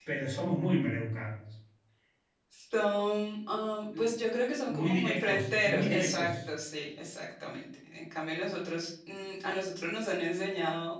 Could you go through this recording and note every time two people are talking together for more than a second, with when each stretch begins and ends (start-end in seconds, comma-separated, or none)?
4.7-6.3